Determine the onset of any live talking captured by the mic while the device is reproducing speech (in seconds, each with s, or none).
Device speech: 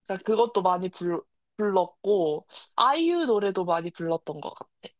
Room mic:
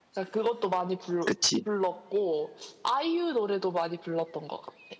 1.2 s